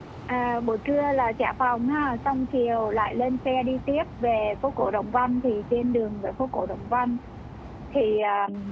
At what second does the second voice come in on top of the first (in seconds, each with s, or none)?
none